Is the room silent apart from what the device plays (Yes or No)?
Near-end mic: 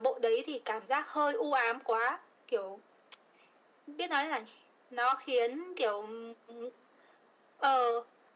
Yes